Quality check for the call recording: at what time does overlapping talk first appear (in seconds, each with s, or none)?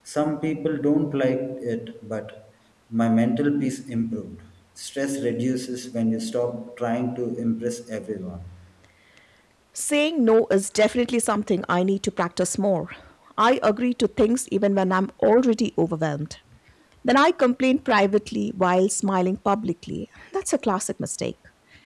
none